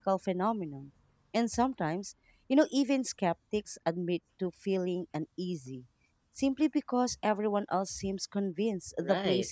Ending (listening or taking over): taking over